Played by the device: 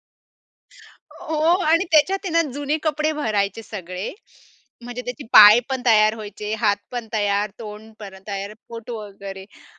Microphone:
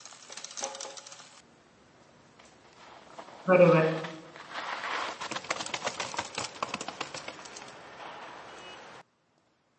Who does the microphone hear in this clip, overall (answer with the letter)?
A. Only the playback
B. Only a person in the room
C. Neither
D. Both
B